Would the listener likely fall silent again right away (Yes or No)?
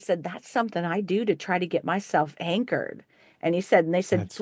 Yes